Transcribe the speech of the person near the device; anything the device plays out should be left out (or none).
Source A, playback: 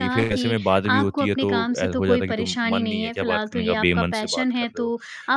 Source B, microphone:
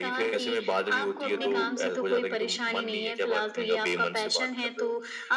हाँ, वही।